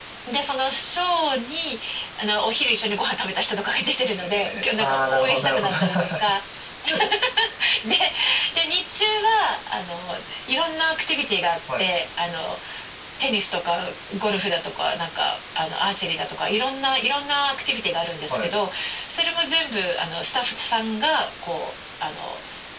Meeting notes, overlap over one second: present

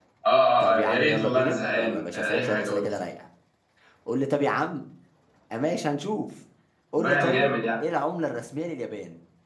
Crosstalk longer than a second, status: present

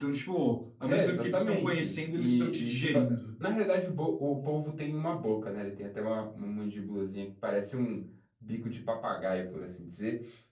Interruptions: present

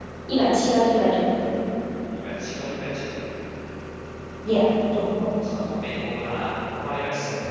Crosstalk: none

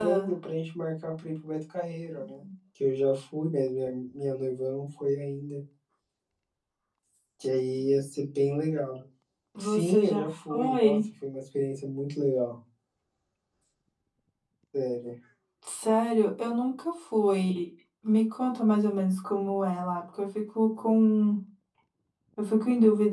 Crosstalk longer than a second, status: present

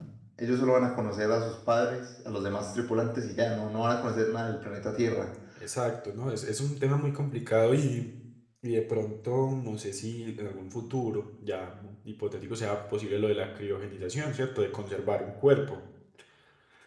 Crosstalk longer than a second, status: none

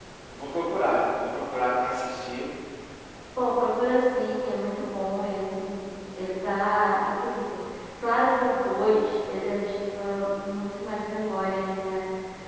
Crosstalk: none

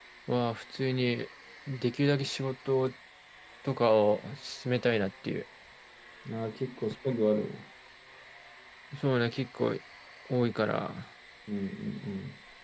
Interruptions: none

